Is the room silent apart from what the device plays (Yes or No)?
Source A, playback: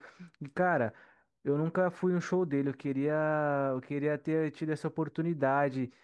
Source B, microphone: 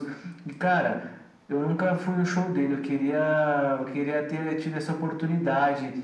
Yes